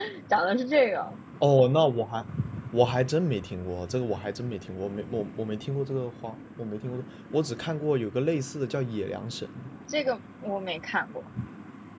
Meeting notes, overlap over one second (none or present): none